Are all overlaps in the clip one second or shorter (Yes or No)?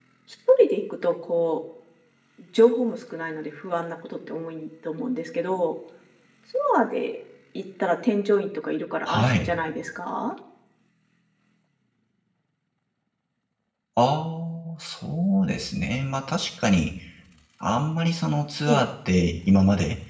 Yes